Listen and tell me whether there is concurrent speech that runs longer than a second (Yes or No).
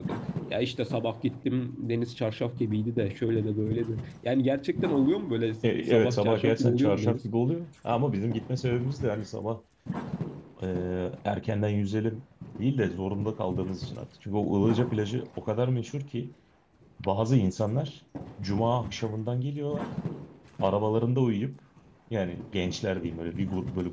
Yes